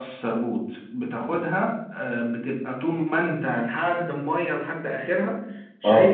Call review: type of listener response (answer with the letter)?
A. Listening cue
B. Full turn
A